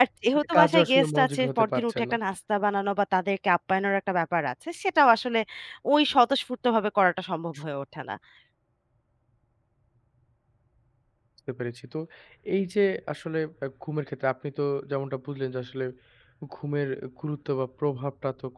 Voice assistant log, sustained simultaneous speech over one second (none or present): present